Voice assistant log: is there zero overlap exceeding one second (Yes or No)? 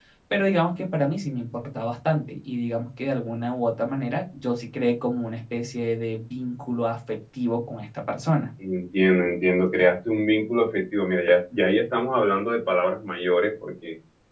Yes